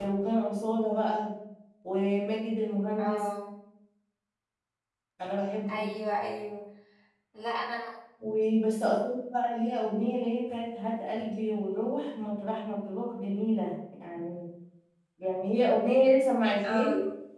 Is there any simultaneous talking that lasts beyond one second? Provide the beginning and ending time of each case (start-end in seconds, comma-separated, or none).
none